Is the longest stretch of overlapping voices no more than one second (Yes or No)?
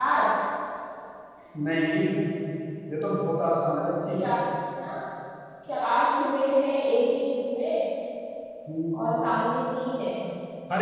Yes